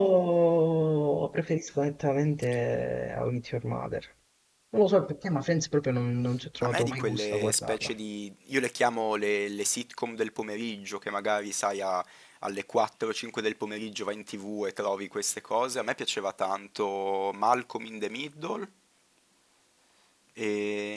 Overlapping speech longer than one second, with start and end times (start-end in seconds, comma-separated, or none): 6.6-7.9